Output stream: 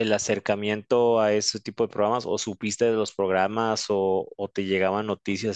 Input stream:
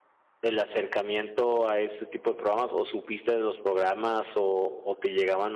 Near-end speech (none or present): none